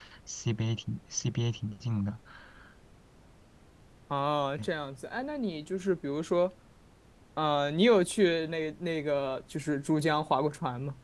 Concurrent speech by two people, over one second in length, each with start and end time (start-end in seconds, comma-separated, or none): none